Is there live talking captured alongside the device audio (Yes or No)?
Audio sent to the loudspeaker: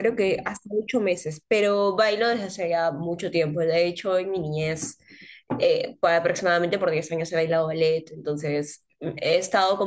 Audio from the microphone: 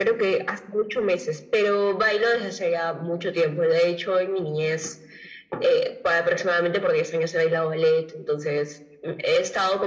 No